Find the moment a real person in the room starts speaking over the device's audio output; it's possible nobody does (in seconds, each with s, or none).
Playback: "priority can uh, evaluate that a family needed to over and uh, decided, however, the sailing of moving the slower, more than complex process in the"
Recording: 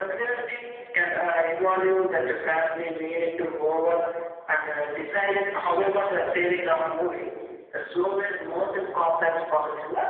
none